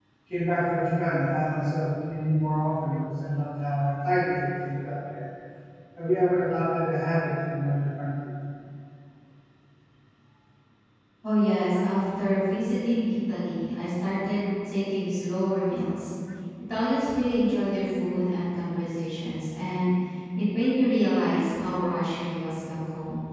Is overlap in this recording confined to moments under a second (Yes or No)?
Yes